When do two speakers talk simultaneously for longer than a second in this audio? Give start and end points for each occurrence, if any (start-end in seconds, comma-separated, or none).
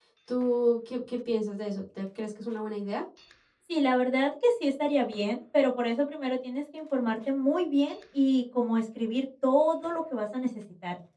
none